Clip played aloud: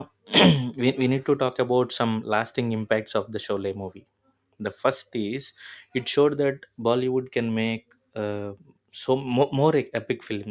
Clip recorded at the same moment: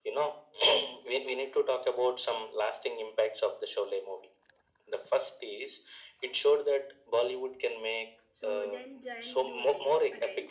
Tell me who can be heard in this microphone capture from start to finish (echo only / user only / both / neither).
both